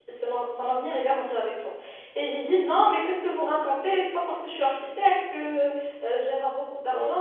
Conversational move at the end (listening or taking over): listening